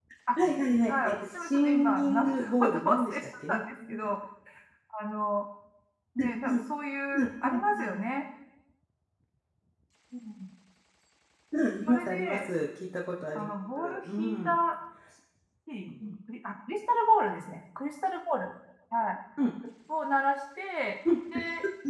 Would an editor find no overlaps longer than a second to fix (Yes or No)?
No